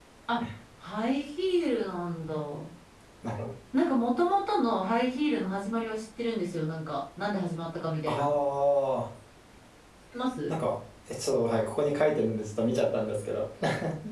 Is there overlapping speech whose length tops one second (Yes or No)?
No